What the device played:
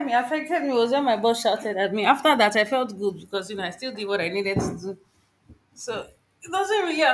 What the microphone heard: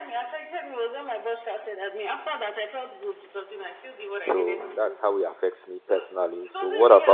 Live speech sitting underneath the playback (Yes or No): No